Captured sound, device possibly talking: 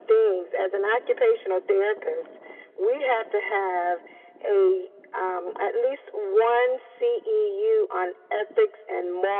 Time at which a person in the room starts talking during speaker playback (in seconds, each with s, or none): none